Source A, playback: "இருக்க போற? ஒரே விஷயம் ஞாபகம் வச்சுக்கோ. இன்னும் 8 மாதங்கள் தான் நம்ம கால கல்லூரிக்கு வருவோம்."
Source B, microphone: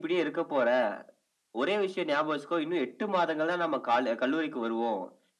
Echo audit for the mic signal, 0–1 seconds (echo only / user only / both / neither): echo only